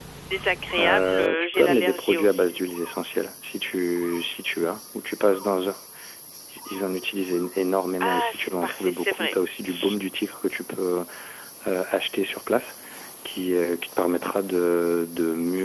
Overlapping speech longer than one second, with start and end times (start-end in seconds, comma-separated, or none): 0.8-2.6, 8.0-9.3